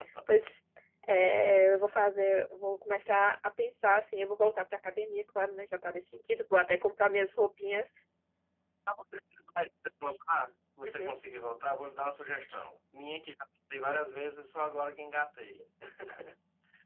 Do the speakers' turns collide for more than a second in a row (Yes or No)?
No